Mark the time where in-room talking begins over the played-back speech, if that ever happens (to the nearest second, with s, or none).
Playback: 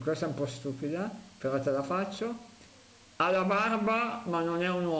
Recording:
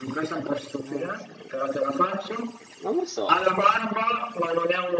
1 s